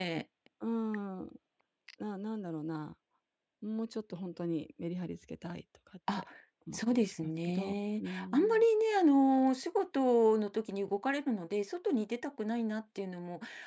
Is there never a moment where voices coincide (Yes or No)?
No